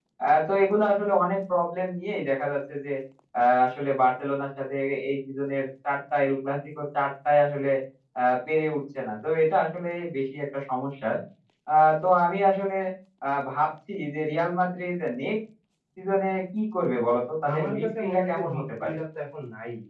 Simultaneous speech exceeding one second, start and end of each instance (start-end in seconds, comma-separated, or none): 17.5-19.0